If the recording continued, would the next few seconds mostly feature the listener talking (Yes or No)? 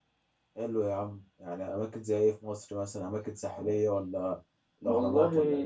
Yes